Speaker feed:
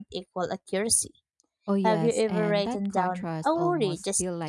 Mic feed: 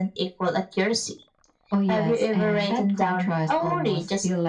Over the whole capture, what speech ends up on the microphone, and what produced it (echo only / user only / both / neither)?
echo only